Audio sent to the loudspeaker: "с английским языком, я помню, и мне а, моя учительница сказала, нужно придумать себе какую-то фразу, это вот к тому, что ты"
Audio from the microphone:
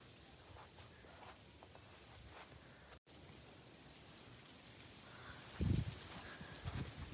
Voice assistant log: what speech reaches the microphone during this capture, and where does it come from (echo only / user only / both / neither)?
neither